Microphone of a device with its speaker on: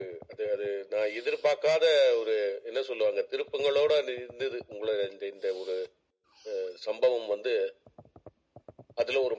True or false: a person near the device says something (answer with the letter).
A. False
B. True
A